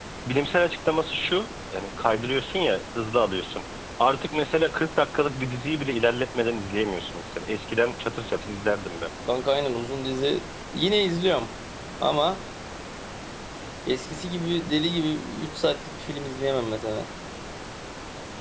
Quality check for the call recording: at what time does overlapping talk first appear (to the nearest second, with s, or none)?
none